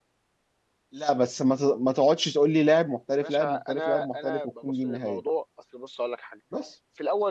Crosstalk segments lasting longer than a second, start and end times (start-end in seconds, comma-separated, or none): 3.1-5.2